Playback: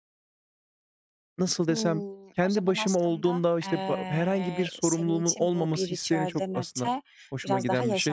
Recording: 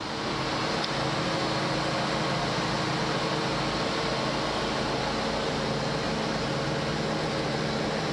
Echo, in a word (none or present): none